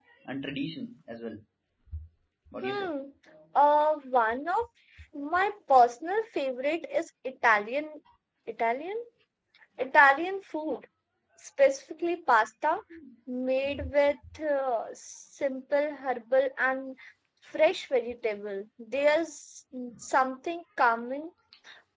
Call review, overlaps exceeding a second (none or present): none